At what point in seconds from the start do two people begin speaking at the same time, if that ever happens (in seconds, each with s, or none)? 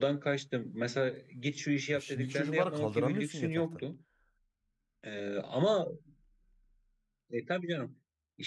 1.9 s